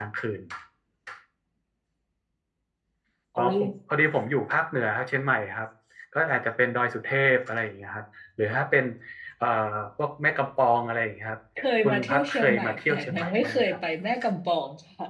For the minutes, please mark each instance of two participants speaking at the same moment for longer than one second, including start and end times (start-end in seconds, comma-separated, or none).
11.8-13.8